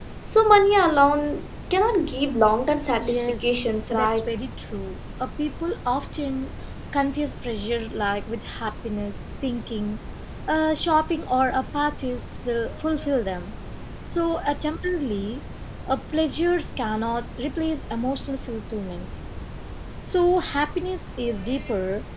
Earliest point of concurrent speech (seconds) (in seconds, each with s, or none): 3.0 s